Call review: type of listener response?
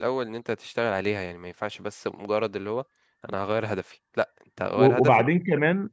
taking over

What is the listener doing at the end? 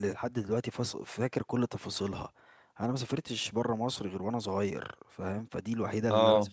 listening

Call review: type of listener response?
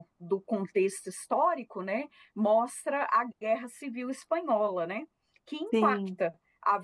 listening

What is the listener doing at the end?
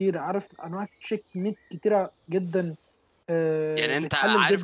taking over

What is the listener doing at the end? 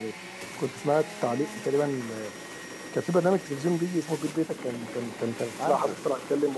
listening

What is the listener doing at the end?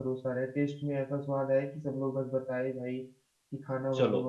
taking over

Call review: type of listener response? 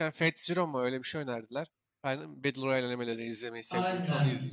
taking over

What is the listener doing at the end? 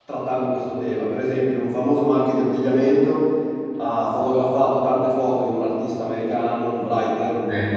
listening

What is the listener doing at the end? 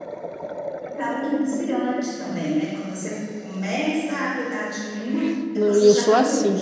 taking over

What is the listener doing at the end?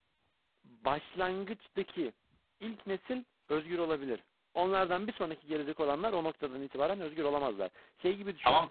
taking over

